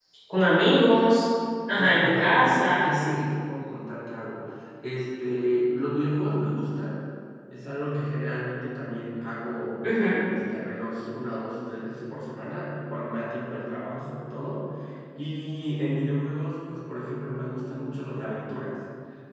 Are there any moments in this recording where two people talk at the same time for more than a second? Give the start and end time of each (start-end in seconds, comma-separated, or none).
1.7-3.2